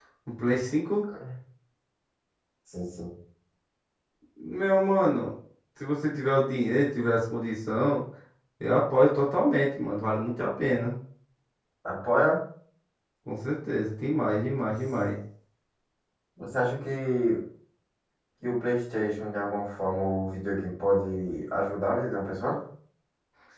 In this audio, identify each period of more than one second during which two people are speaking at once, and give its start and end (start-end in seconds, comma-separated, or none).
none